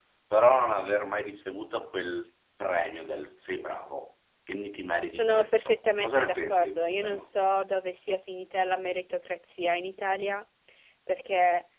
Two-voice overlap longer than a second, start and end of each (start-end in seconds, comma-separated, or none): 5.1-7.3